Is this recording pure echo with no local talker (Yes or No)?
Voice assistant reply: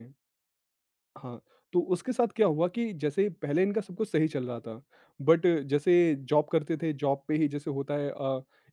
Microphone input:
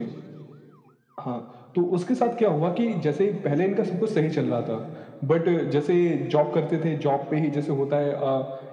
Yes